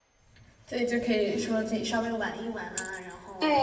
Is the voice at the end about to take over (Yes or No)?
Yes